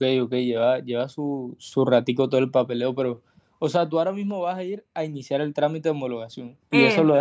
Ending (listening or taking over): listening